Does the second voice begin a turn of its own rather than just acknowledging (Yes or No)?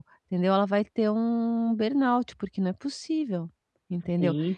No